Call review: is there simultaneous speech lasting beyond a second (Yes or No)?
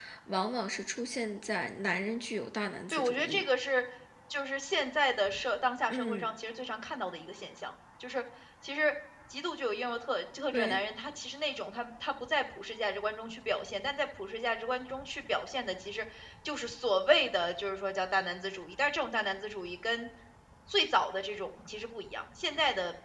No